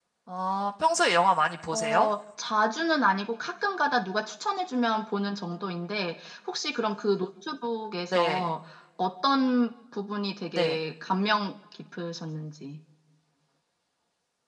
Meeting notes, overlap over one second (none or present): none